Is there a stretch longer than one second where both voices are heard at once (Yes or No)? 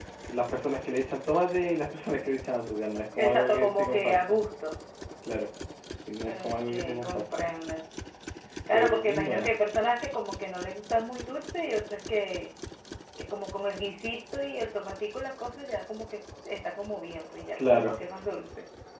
Yes